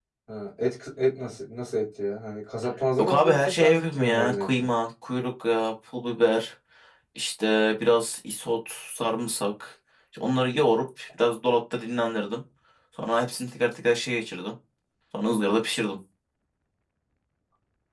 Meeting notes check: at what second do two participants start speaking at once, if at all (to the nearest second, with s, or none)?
3 s